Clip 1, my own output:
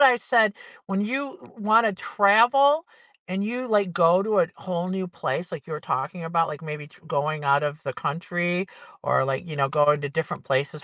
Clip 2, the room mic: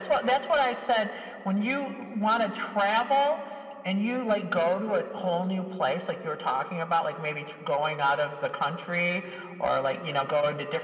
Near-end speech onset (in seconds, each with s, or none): none